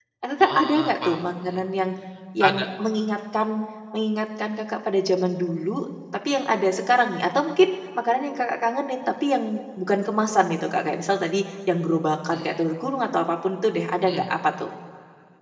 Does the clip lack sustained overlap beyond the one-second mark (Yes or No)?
No